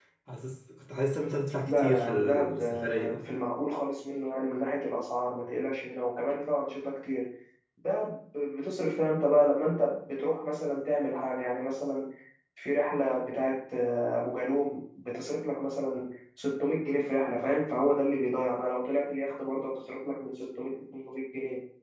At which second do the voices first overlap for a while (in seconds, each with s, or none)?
1.6 s